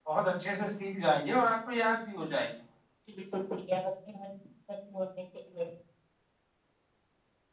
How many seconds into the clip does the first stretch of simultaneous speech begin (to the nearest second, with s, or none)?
none